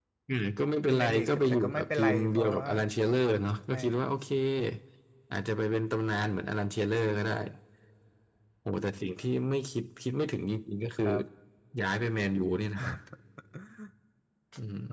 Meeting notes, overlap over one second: present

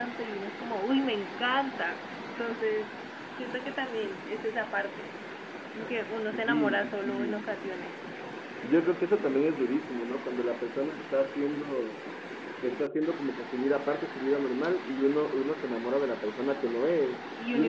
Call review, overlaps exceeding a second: present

